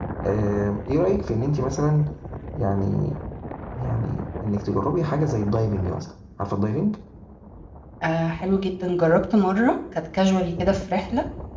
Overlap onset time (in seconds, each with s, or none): none